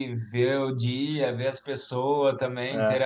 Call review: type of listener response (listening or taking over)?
listening